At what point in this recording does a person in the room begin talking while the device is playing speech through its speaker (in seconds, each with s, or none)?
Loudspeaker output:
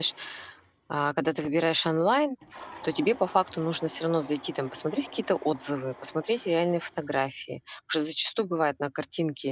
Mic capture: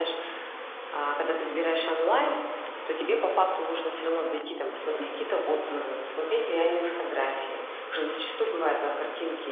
none